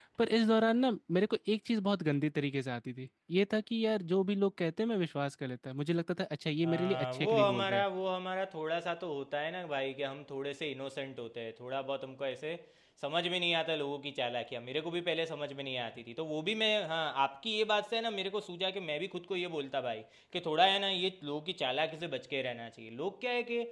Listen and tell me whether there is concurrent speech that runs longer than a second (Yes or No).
Yes